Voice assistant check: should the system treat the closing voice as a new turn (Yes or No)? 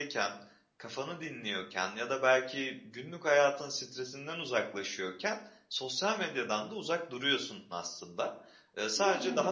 No